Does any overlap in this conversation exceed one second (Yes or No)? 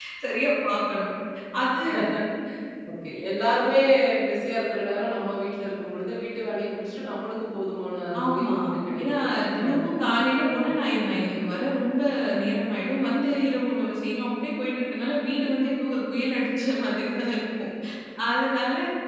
No